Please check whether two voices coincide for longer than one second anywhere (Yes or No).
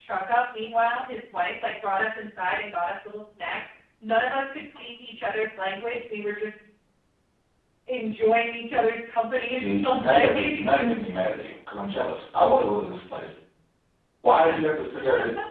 Yes